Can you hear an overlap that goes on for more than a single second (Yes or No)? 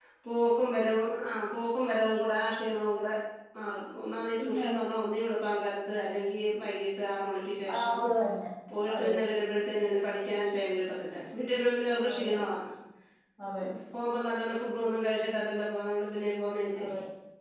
No